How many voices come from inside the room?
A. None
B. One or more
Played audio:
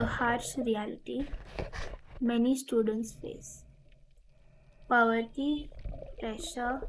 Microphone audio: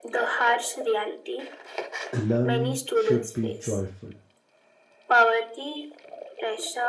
B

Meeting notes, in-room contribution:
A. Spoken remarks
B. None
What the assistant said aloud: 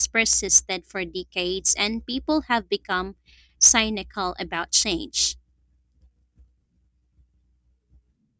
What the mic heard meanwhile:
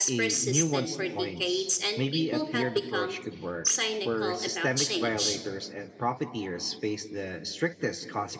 A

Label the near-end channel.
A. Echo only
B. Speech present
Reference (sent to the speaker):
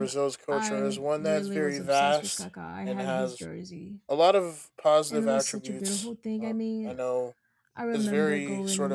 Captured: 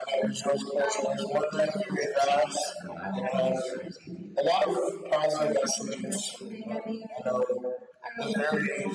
A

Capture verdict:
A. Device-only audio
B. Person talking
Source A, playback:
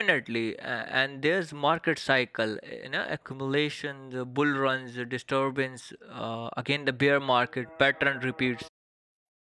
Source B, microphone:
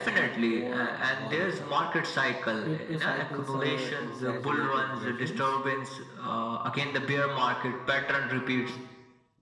B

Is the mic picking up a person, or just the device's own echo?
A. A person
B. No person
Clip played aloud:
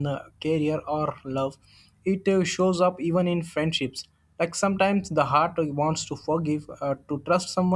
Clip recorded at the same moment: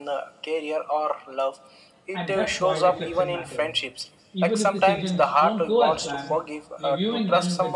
A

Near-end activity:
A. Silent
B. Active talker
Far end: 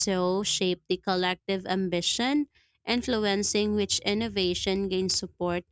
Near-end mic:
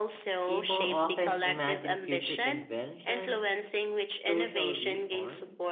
B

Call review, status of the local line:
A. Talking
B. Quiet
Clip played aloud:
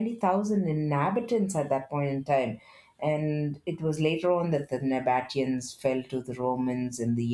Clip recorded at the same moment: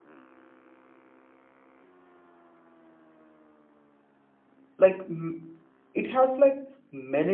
A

